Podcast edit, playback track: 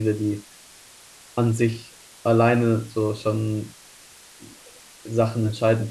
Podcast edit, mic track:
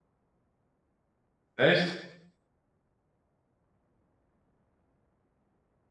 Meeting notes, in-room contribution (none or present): present